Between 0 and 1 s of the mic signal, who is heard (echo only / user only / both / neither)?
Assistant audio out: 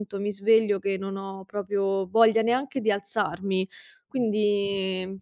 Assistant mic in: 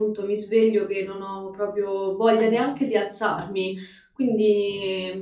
echo only